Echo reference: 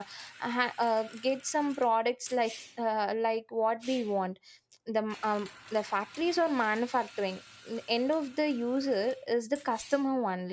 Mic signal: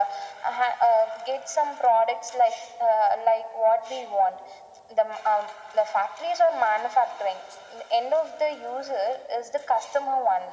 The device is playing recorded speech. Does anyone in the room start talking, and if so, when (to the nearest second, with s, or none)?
none